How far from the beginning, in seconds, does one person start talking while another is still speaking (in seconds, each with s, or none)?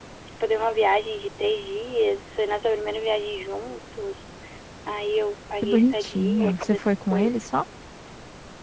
5.6 s